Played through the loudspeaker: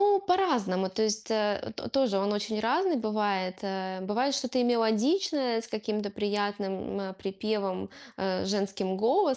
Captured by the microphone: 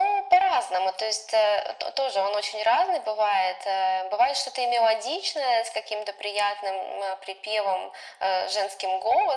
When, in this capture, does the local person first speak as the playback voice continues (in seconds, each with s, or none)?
none